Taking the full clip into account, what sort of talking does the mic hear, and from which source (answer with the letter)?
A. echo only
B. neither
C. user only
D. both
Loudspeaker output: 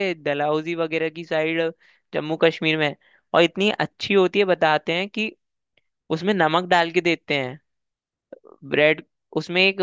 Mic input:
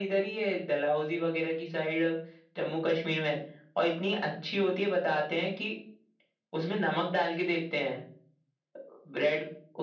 A